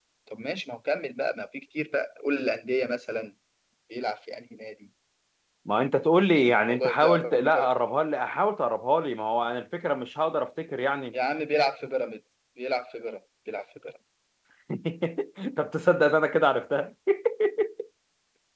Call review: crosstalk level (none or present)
present